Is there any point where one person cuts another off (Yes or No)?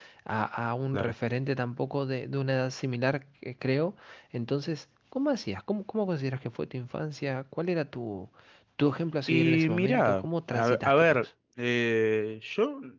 Yes